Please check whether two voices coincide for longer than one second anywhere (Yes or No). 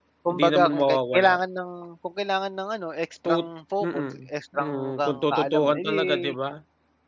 Yes